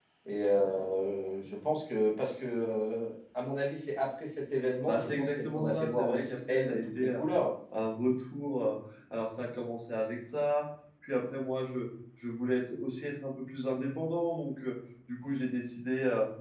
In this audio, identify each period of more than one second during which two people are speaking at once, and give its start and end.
4.9-7.2

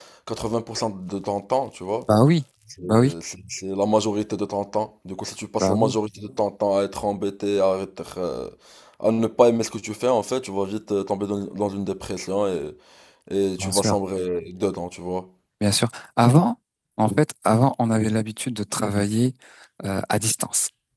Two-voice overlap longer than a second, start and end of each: none

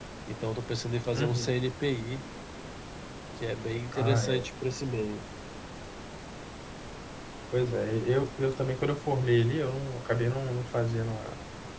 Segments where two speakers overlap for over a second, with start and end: none

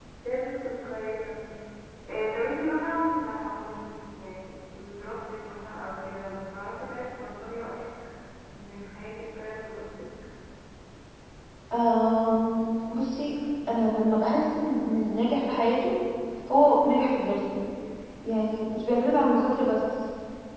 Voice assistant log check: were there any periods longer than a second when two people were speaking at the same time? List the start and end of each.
none

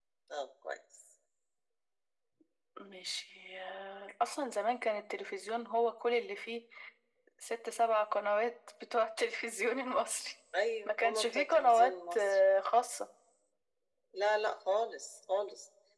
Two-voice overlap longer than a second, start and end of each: 10.8-12.4

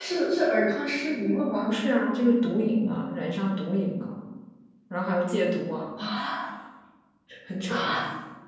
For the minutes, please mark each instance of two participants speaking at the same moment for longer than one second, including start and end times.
none

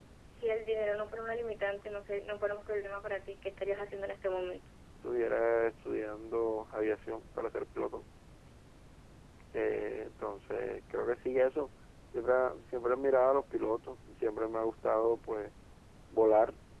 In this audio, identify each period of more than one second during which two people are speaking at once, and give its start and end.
none

